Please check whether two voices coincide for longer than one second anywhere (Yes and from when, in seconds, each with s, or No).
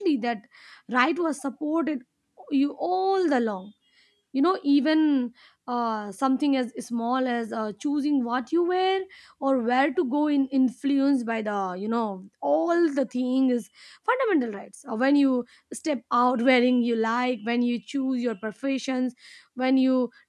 No